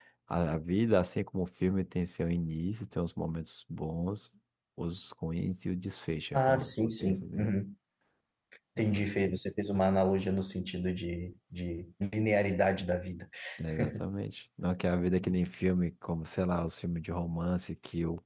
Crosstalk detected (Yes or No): Yes